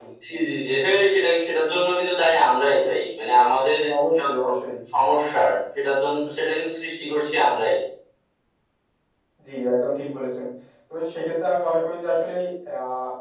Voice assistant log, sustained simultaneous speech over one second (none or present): none